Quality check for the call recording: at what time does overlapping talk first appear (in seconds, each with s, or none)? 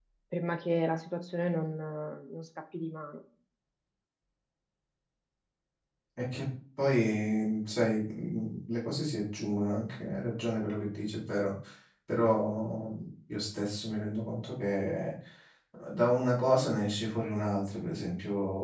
none